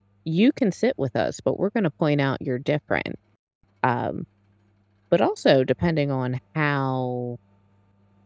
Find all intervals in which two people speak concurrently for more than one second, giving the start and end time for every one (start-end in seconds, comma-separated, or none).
none